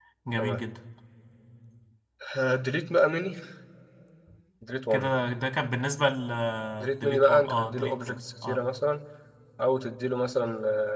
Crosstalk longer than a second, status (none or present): present